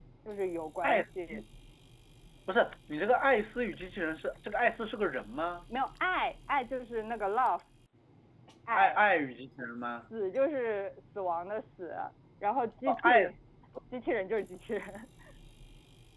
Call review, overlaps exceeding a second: none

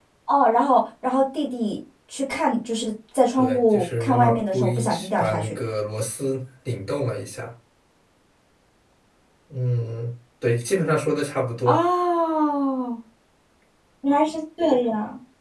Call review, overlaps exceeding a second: present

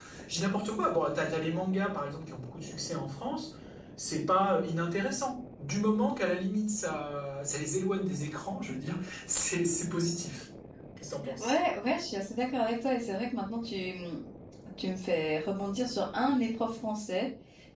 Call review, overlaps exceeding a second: none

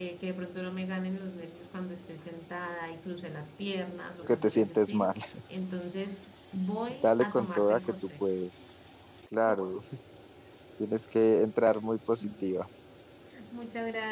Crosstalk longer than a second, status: present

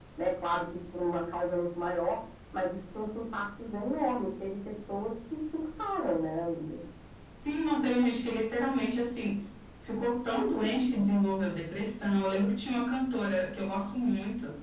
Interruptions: none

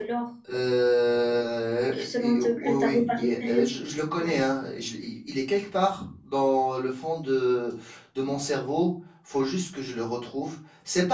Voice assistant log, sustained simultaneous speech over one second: present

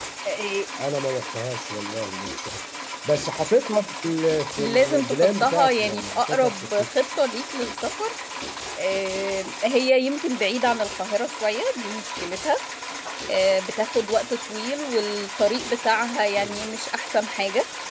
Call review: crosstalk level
present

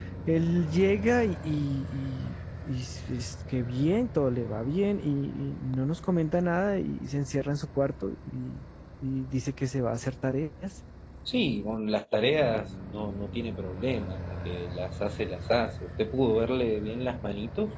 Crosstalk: none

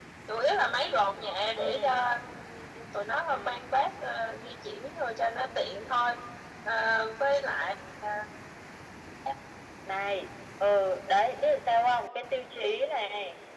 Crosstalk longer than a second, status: none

